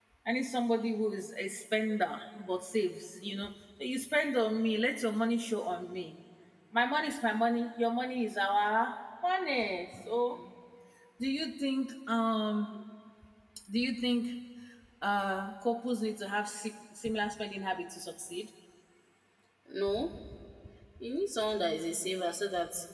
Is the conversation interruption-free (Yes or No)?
Yes